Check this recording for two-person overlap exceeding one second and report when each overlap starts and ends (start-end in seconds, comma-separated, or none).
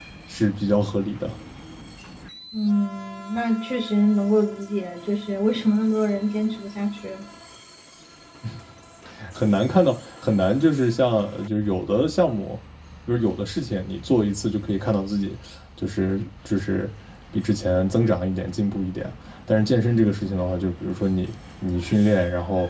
none